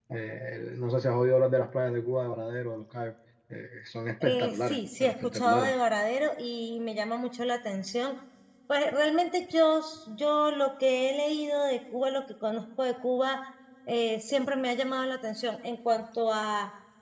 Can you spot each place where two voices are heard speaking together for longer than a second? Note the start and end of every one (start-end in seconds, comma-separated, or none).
4.2-5.7